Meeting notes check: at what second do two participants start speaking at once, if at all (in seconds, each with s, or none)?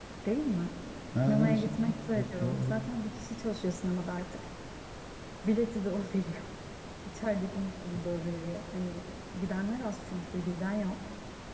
1.3 s